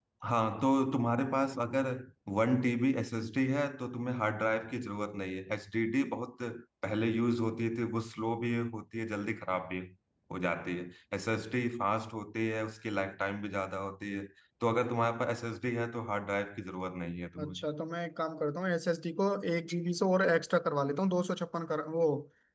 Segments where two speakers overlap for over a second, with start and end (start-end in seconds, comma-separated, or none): none